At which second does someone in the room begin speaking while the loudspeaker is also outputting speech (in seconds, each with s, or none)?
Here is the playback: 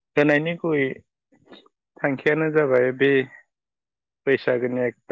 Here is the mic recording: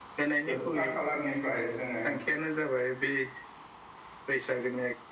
0.5 s